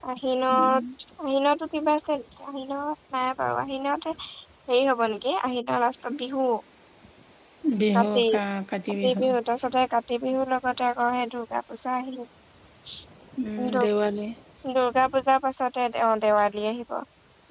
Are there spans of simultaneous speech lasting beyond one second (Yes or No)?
No